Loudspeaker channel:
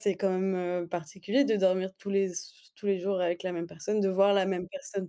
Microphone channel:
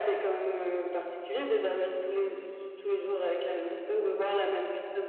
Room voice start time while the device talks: none

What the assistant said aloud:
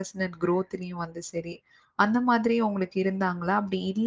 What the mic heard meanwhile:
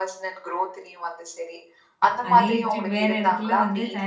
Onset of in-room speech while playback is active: 2.3 s

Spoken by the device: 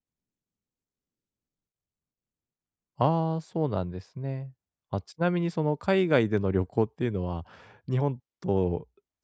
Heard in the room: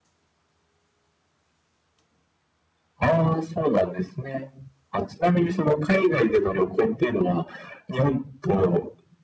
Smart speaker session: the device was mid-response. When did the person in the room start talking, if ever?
none

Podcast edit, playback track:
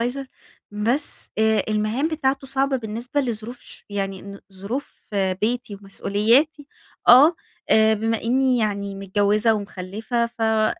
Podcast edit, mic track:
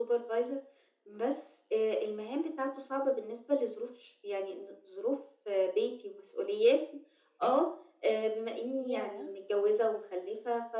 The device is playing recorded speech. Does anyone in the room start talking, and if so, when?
8.8 s

